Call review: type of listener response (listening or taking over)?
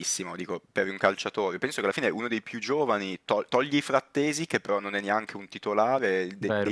listening